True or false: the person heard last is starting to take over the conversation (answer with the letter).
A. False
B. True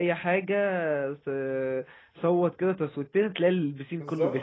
B